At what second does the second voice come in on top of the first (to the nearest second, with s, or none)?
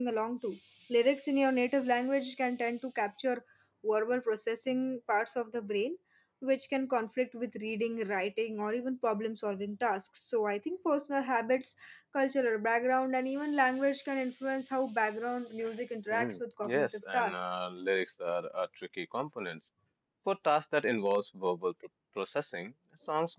16 s